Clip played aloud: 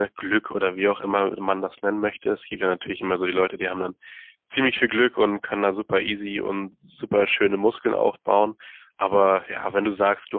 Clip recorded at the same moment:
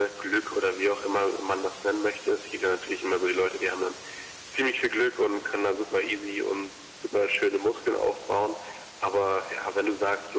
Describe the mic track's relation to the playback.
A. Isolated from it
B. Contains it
B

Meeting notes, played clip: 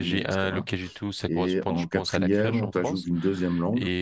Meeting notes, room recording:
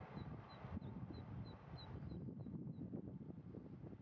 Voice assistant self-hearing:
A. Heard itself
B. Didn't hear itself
B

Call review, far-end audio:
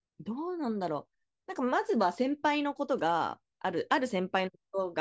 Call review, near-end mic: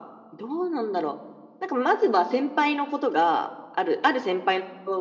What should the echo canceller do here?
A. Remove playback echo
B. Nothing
A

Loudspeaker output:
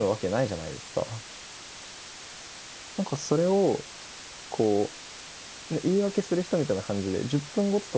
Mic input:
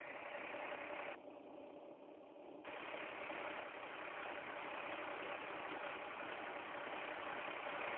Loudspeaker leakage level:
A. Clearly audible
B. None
B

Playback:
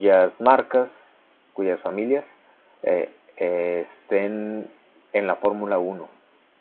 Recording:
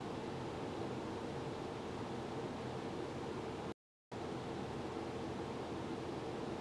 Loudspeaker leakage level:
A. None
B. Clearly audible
A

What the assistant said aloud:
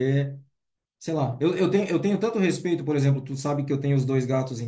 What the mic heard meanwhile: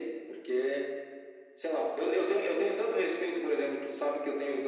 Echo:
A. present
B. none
A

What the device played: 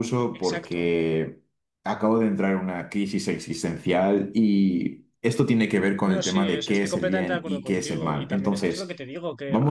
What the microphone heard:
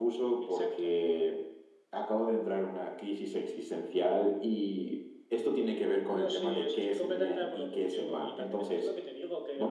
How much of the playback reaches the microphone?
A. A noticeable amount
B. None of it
A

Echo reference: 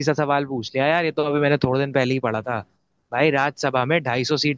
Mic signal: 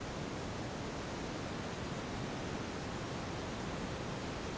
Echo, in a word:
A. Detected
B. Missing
B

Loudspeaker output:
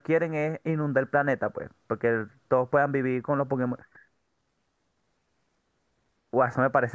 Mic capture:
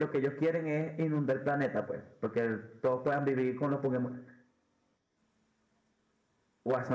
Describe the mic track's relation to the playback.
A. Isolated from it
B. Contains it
B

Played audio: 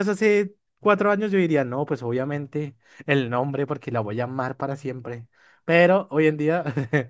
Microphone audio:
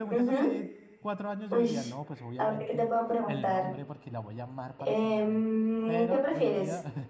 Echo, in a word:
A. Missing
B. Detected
B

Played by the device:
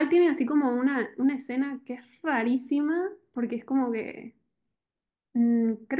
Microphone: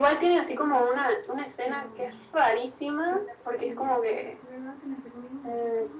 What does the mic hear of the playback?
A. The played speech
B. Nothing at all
A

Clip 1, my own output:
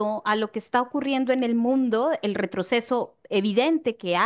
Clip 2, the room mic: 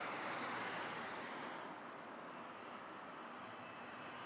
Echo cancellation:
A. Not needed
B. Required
A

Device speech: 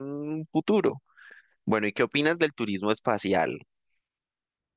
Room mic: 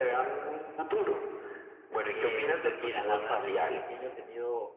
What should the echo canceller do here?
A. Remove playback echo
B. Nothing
A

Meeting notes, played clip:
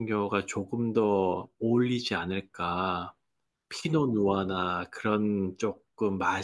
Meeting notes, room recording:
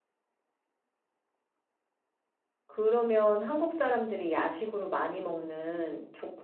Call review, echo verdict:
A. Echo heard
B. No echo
B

